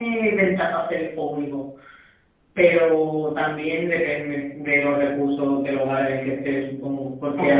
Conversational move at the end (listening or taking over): listening